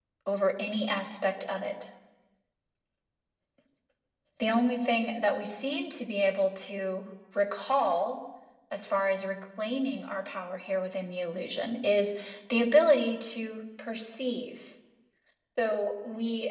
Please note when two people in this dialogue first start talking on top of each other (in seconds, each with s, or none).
none